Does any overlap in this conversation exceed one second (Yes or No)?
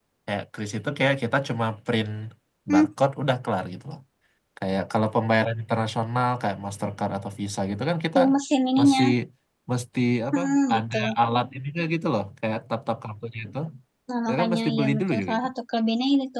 Yes